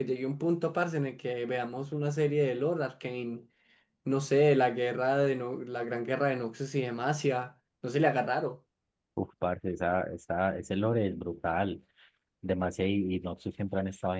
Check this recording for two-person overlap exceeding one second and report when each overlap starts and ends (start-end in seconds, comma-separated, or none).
none